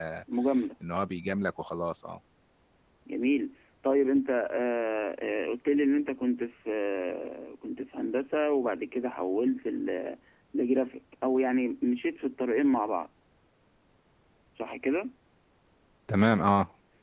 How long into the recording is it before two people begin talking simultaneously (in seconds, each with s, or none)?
none